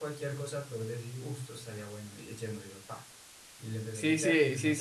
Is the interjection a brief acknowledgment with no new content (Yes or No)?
No